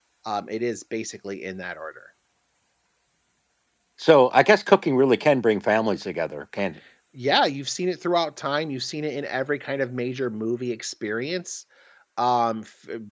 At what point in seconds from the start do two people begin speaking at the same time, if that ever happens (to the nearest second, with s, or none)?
none